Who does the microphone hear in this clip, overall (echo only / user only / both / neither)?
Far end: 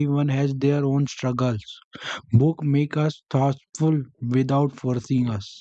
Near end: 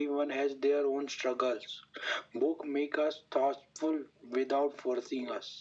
echo only